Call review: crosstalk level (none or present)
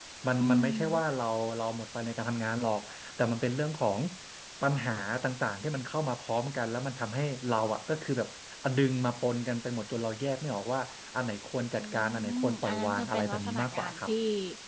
present